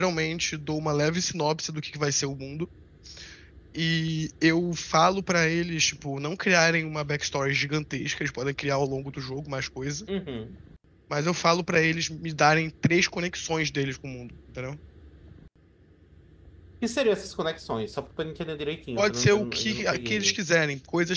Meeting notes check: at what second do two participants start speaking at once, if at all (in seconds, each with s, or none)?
19.0 s